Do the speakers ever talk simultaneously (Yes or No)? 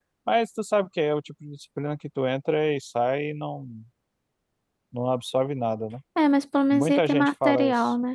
Yes